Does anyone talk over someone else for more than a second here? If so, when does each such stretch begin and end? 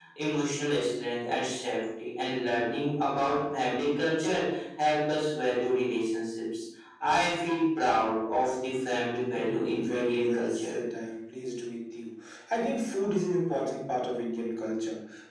9.4-10.7

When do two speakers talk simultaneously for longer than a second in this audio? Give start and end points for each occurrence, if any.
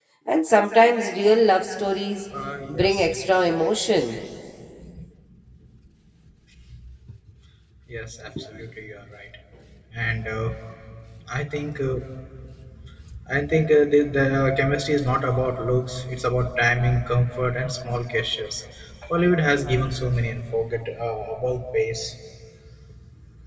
none

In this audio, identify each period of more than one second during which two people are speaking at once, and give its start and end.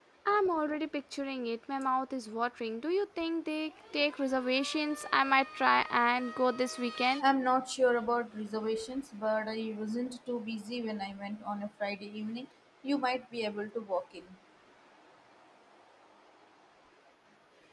none

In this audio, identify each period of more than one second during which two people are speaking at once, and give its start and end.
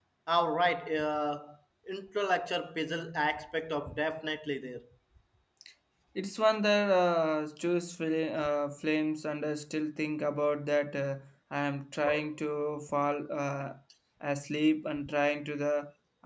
none

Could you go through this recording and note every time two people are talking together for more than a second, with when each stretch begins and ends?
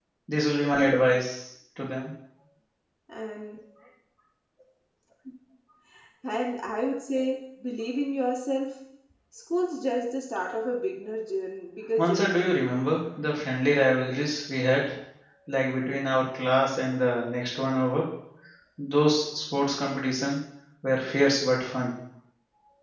none

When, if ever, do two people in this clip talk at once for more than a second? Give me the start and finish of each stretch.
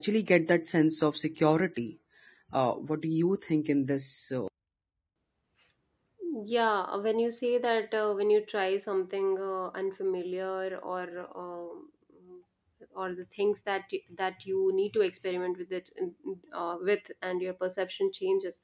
none

